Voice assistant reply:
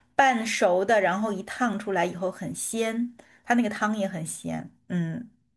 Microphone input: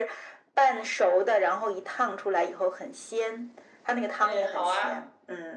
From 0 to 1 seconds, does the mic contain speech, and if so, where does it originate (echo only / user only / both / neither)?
echo only